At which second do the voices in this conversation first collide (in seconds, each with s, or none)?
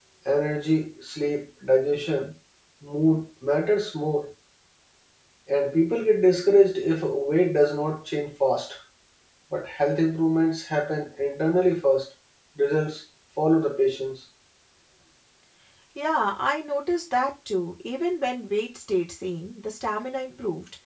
none